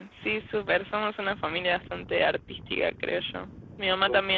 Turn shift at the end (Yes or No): No